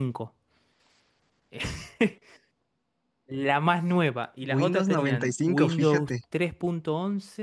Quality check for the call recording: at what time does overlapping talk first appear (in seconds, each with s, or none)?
4.4 s